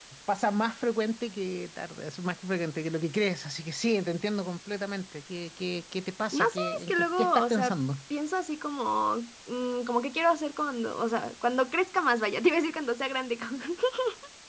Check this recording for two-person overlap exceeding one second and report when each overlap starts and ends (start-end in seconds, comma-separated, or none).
6.3-7.8